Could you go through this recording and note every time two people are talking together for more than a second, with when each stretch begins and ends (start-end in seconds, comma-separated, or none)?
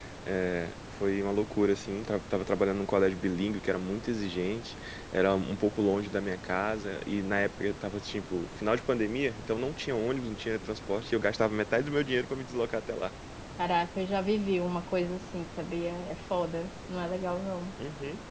none